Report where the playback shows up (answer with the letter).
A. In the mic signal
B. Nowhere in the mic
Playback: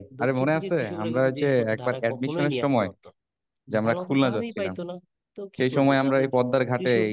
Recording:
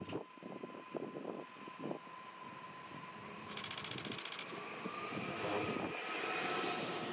B